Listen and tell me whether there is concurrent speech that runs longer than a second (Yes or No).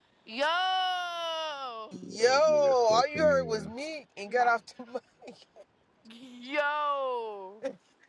Yes